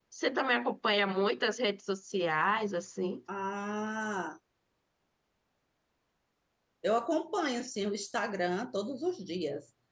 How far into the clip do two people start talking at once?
none

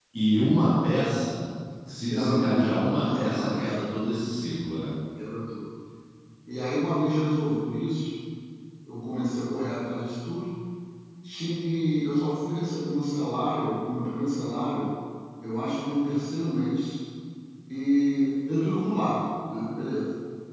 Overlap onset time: 2 s

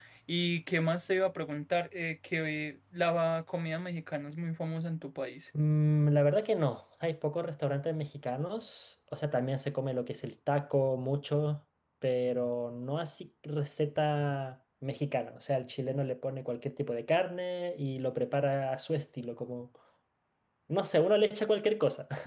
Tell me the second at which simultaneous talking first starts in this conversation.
none

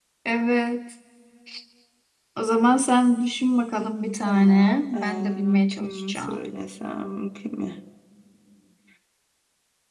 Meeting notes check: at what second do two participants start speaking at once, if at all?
4 s

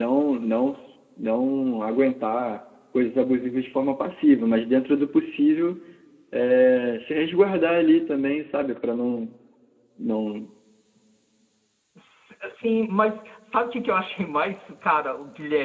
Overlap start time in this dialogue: none

